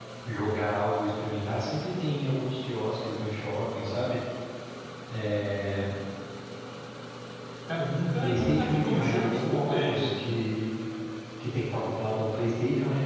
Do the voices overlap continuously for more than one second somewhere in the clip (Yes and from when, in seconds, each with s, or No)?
Yes, from 8.2 s